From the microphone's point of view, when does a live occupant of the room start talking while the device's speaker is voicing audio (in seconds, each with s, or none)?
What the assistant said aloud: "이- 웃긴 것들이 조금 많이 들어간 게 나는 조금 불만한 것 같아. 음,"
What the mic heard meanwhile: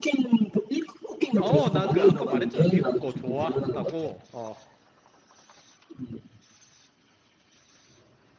1.3 s